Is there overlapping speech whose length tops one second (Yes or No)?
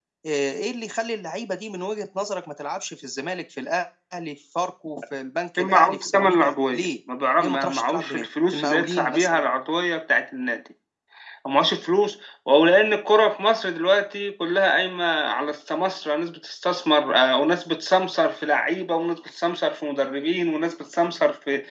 Yes